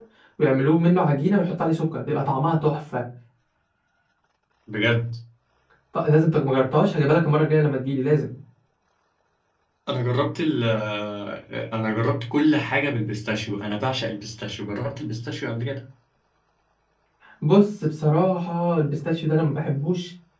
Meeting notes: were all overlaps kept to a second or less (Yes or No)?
Yes